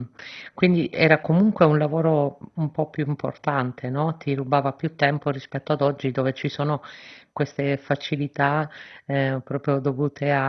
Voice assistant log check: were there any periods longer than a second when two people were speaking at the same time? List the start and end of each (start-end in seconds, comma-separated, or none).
none